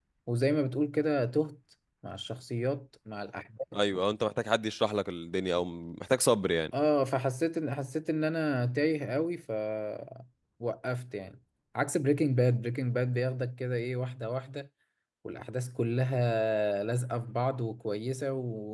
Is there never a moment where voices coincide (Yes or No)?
Yes